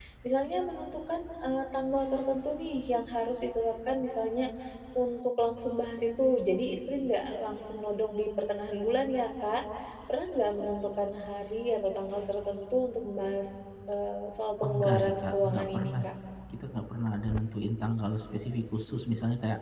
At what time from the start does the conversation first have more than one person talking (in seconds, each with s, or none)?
14.6 s